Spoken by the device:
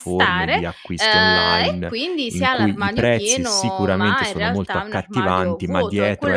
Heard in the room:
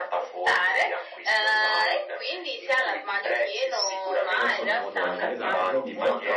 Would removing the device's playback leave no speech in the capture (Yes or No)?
No